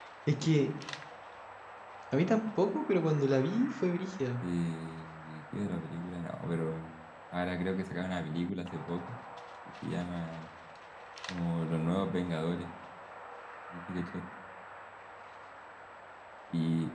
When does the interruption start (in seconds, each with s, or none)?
none